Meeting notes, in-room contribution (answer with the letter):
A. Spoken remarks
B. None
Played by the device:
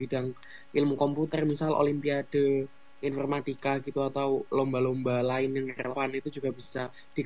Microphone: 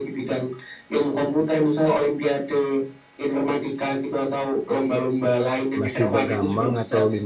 A